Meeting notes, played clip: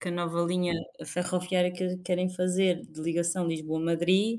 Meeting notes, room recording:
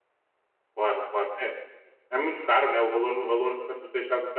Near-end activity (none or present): present